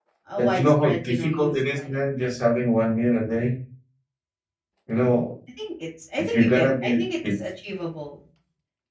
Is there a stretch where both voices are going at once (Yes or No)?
Yes